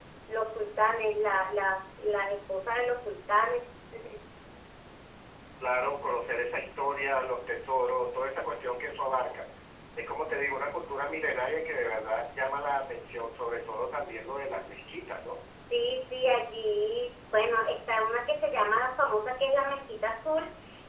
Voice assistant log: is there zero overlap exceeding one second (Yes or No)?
Yes